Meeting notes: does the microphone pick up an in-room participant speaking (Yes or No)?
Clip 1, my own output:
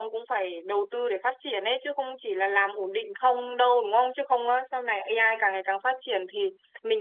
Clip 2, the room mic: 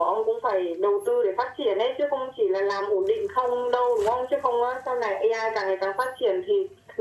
No